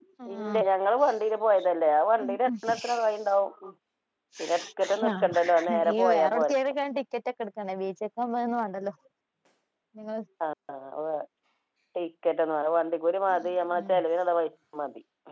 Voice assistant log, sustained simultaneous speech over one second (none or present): present